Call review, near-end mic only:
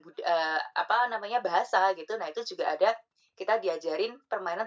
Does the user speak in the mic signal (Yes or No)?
No